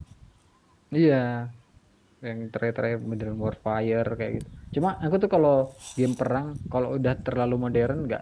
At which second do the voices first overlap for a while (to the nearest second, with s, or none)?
none